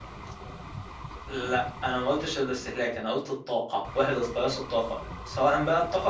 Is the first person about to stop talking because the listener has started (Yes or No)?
No